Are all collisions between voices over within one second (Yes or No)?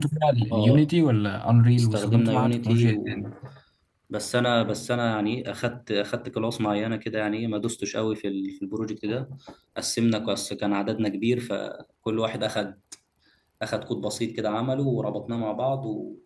No